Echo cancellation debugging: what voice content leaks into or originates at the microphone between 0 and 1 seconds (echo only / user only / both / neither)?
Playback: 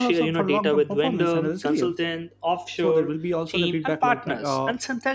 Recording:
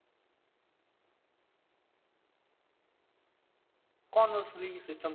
neither